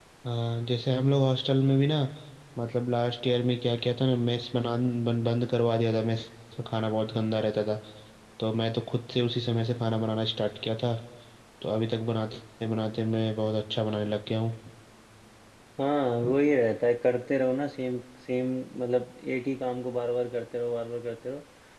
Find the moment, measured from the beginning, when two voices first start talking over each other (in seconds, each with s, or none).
none